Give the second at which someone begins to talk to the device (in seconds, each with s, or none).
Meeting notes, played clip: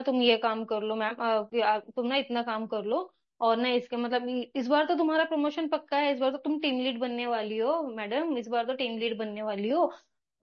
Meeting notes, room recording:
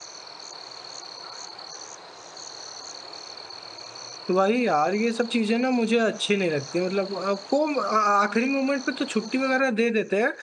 4.3 s